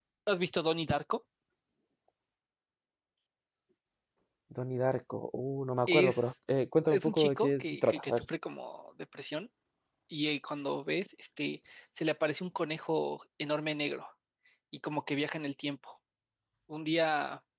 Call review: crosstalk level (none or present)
present